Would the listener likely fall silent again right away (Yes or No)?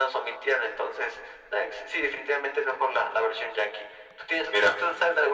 Yes